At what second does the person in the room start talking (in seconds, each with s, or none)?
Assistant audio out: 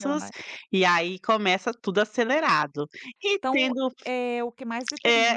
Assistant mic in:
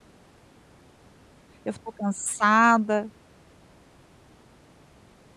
1.6 s